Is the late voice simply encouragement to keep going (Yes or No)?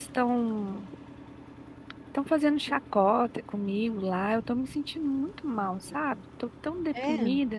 Yes